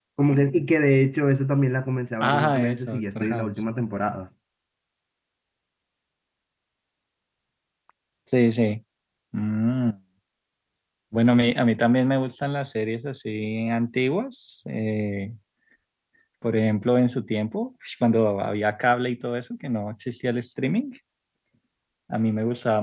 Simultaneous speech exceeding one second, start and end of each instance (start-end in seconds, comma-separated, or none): 2.2-3.5